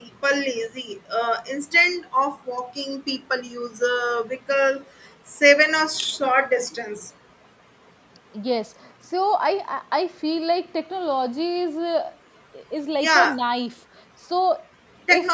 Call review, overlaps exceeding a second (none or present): none